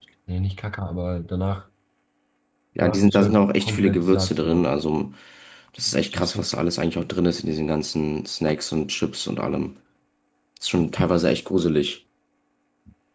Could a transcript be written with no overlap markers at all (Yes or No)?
No